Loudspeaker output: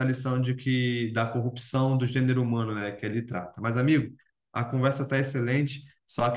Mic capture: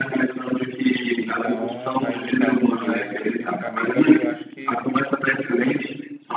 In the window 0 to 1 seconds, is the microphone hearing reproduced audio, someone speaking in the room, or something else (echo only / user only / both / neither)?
echo only